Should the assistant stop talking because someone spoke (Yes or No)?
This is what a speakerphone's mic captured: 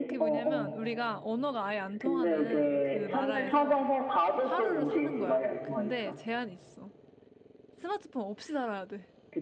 Yes